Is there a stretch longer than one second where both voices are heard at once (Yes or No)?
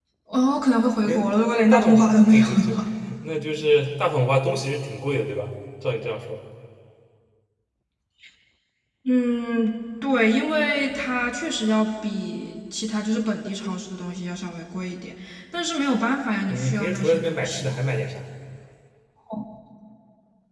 Yes